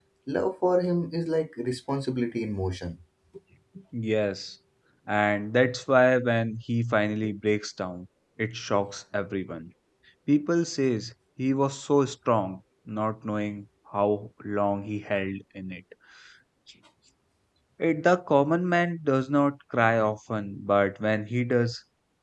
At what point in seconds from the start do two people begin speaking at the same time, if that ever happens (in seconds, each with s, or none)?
none